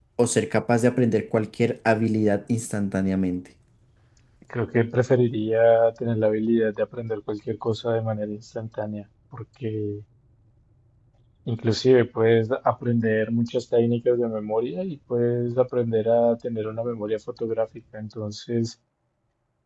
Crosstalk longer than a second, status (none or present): none